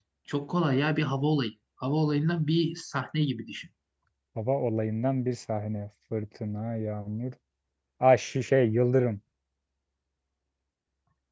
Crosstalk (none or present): none